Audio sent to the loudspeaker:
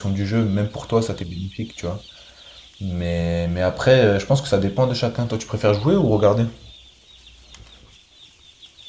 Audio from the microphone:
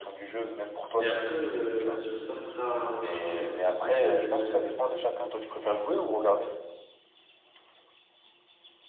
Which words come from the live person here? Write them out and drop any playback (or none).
Mais après, euh, sur certains autres jeux, je sais que,